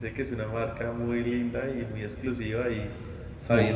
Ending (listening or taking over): listening